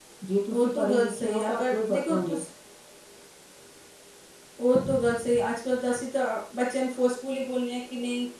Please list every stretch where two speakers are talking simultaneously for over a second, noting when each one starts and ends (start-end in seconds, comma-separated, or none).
0.5-2.4